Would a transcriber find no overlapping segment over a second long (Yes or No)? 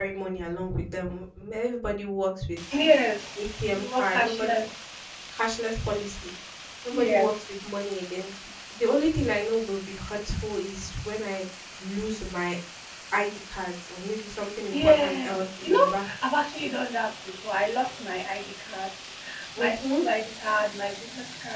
No